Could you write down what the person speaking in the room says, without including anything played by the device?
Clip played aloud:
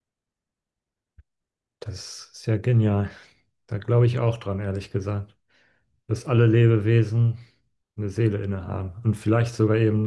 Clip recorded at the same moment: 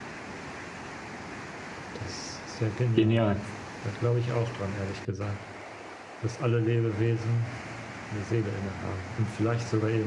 genial.

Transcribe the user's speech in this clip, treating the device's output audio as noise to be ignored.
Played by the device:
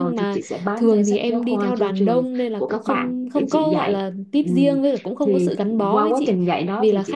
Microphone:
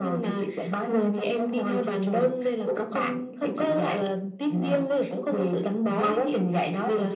none

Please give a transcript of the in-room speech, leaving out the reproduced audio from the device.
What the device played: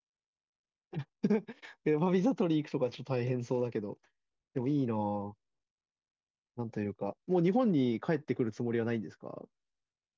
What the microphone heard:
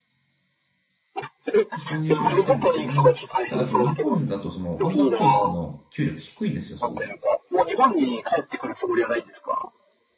そこの入試をやってるんですけども、ただその日本だとその音楽教室の給料って低いんですよ、すごく。

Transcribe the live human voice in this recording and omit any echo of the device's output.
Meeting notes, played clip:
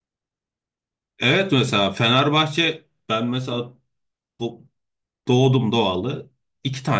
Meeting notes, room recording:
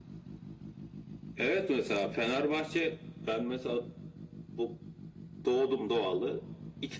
none

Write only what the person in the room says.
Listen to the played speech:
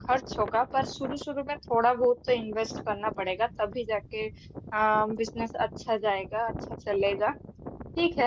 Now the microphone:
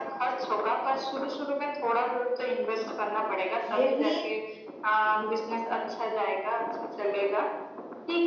ये भी

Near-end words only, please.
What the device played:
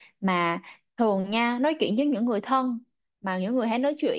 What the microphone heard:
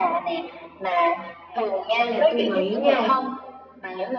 Hay hay là tôi nghĩ nha

